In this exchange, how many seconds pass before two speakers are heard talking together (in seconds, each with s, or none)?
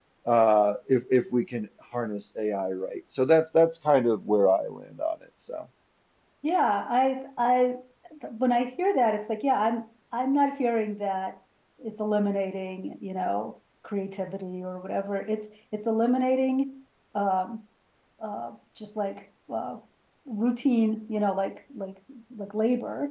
none